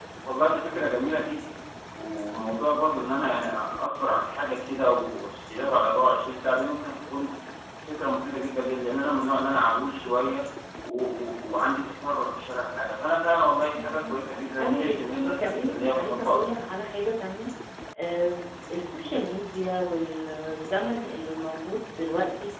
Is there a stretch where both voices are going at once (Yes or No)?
Yes